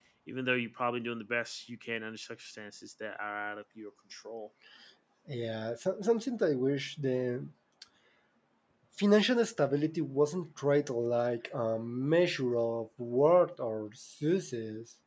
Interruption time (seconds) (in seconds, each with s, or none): none